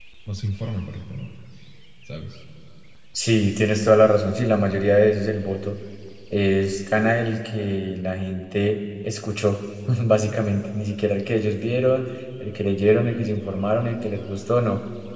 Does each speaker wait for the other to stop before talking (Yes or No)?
Yes